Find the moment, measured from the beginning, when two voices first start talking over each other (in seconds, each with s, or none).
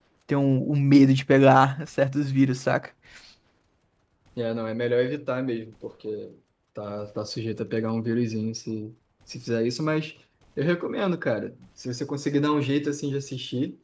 none